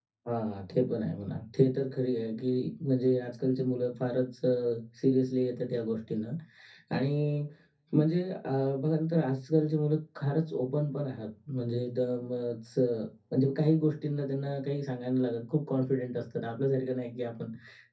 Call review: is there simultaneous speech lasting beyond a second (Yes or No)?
No